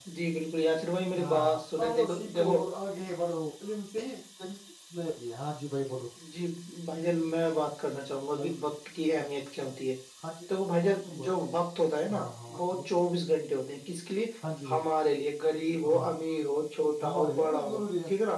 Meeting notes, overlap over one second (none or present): present